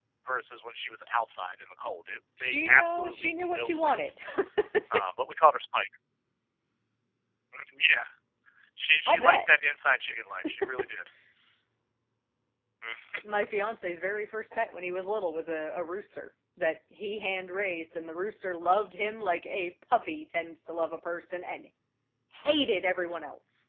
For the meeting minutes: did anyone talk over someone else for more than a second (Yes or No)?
Yes